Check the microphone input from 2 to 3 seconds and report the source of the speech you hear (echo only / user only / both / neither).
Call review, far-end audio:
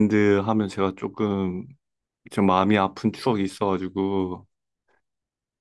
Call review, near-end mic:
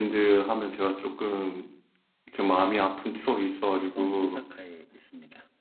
echo only